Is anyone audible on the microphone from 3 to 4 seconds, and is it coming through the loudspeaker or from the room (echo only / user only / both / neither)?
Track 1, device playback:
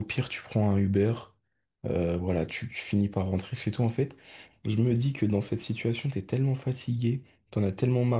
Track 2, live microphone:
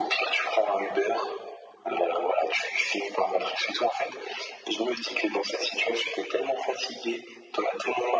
echo only